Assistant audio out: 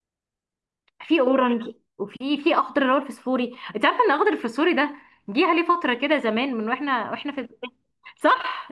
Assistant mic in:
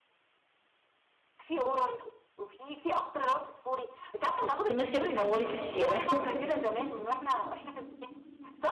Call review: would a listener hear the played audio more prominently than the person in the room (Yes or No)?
No